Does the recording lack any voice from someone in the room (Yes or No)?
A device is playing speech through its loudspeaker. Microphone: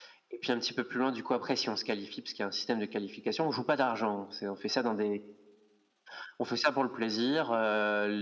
Yes